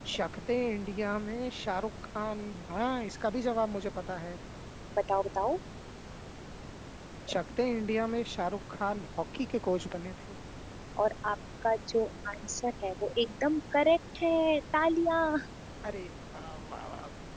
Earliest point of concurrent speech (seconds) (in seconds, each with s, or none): none